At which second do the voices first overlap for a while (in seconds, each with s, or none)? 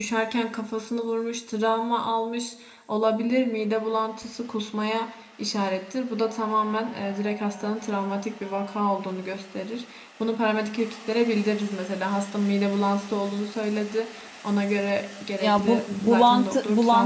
15.4 s